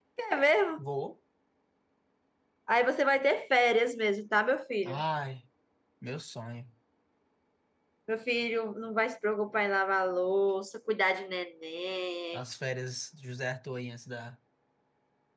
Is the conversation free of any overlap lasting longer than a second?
Yes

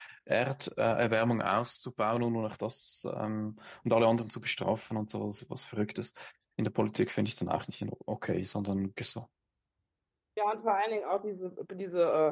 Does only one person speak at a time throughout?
Yes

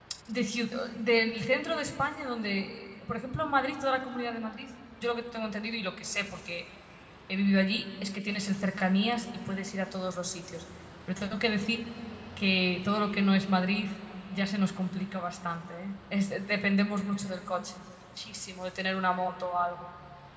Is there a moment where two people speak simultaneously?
No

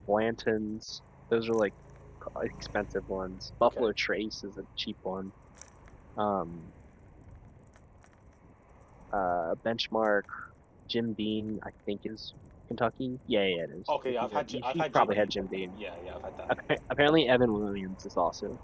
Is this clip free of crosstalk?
No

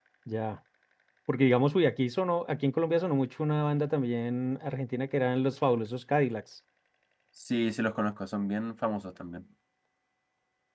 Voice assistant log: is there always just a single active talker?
Yes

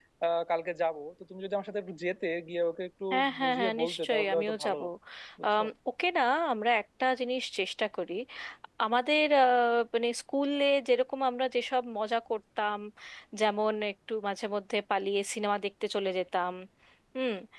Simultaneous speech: Yes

